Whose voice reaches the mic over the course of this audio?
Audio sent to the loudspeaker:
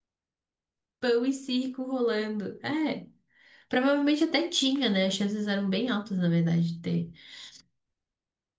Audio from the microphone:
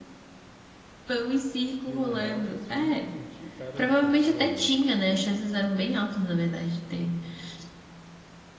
both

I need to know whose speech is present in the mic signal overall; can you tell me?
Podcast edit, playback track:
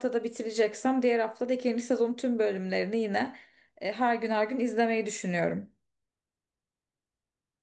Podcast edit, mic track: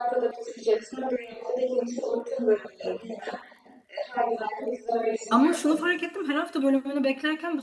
both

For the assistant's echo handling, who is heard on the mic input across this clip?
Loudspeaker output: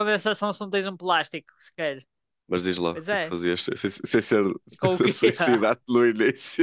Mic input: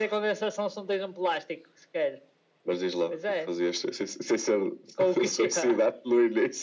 echo only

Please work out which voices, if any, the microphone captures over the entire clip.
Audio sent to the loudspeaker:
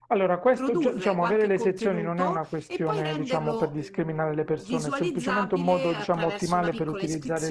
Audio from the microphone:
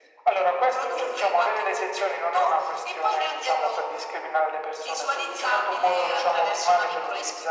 echo only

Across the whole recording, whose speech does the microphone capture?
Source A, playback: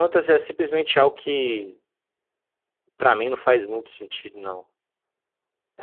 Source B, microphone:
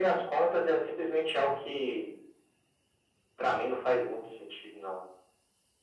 echo only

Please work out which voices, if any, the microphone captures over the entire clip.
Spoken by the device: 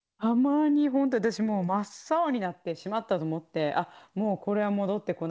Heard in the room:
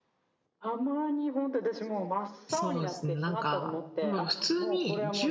both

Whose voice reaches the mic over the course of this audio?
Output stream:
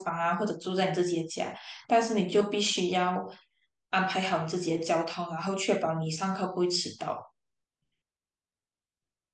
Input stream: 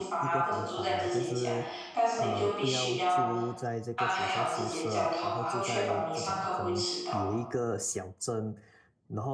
both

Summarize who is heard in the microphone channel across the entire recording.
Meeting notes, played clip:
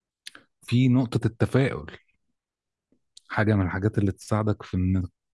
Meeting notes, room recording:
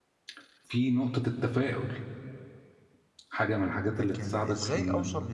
both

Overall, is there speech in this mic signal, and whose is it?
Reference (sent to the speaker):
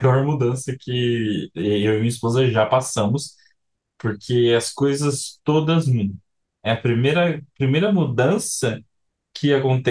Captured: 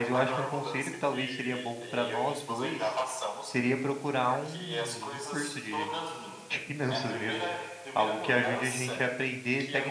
both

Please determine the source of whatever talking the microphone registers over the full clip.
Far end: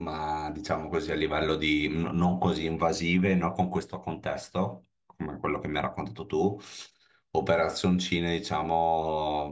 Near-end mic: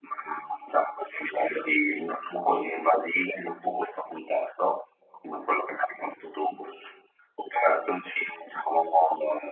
echo only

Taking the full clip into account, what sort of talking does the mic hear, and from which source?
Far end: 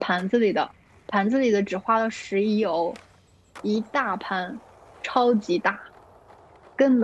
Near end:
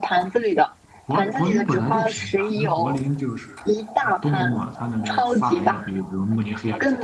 both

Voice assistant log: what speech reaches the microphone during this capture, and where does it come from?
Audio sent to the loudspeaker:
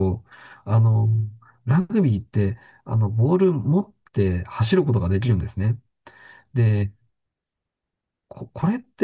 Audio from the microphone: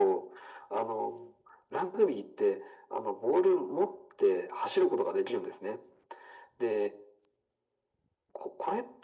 echo only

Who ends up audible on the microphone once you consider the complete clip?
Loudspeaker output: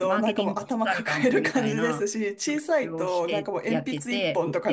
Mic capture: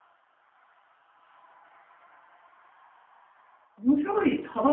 user only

